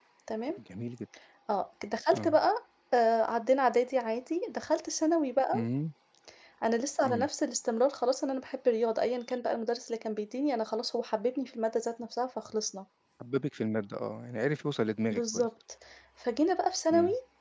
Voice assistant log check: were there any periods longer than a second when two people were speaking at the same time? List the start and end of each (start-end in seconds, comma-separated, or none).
none